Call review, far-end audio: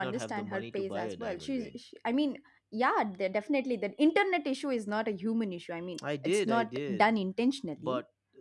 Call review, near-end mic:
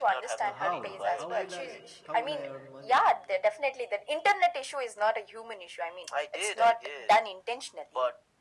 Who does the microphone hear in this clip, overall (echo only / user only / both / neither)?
both